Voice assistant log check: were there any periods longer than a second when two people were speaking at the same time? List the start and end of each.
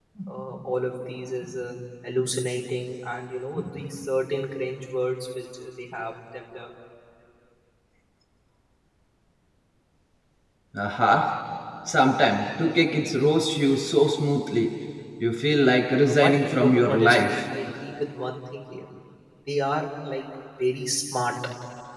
16.1-17.4

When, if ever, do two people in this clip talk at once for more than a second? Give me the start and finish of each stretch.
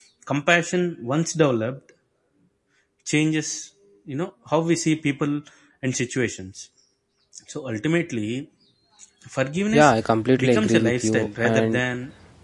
10.4-11.8

